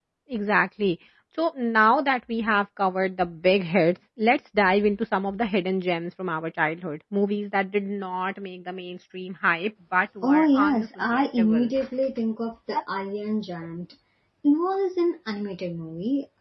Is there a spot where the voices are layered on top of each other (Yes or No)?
Yes